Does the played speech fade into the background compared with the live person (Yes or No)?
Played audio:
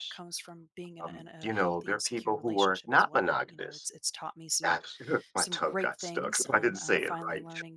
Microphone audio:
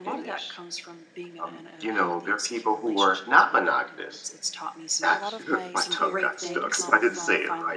No